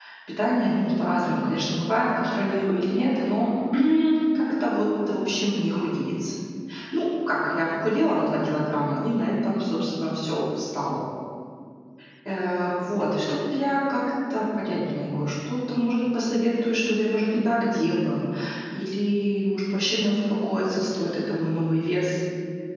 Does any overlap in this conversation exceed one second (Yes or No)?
No